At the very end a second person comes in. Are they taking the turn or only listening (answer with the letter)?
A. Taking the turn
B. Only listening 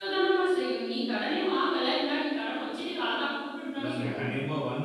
A